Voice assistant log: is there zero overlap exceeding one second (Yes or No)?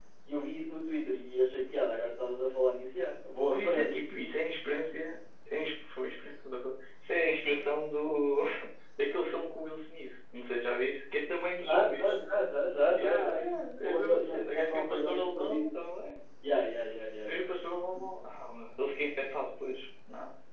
No